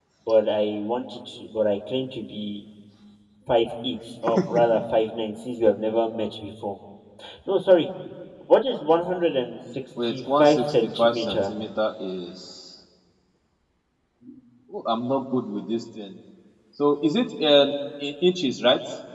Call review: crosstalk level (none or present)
present